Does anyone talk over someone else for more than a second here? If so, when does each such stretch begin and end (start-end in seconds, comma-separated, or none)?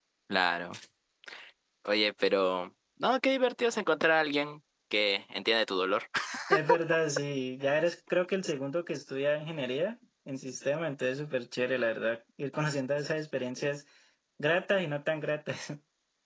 none